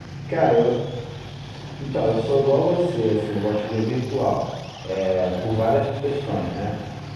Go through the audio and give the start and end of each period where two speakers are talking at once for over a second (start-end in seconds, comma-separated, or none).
none